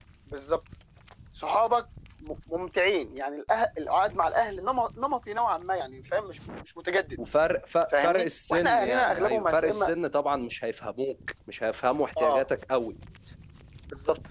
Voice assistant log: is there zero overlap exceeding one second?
No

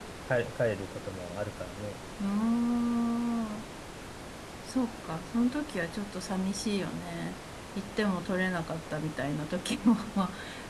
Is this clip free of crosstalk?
Yes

